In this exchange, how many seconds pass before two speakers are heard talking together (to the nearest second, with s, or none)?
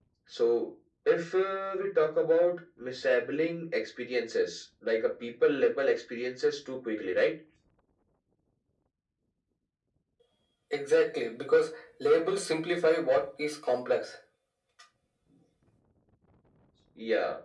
none